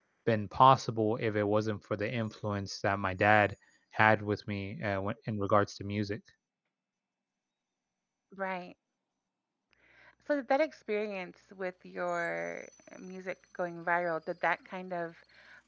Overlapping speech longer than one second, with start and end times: none

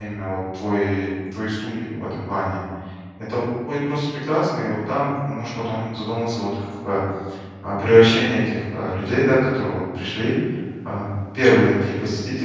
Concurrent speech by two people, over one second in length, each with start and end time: none

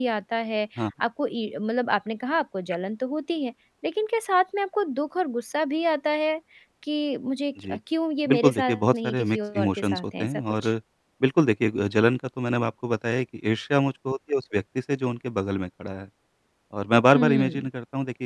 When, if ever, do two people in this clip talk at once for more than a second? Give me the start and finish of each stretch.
8.3-10.7

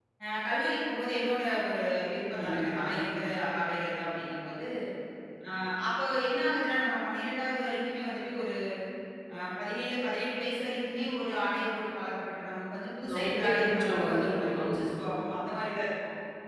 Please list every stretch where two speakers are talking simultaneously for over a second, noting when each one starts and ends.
13.1-14.8

